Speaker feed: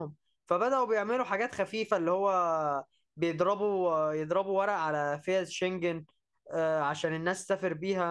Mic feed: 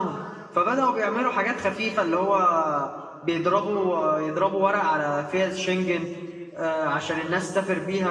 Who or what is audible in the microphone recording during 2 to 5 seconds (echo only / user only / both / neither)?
echo only